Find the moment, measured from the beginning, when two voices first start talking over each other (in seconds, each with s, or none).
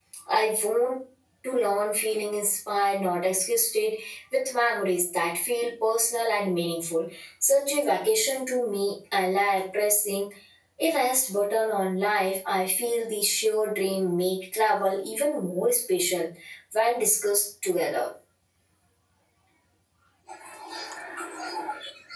none